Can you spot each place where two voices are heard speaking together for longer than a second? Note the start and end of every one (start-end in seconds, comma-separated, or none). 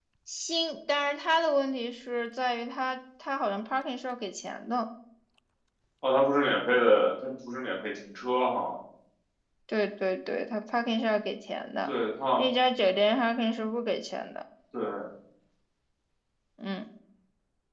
none